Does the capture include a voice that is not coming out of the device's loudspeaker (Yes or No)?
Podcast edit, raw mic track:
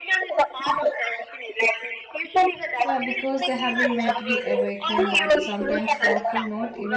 Yes